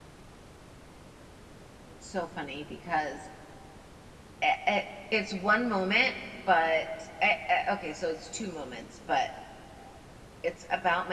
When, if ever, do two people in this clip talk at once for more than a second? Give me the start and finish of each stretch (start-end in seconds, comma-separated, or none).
none